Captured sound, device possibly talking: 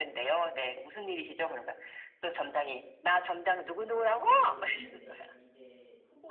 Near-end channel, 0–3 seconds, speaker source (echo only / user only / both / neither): echo only